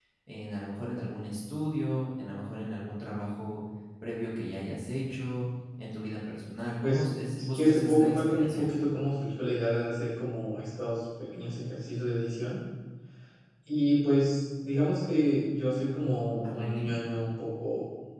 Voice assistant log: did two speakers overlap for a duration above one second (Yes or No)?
Yes